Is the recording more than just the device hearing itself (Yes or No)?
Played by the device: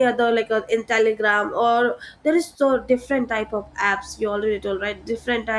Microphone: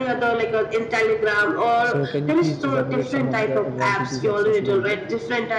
Yes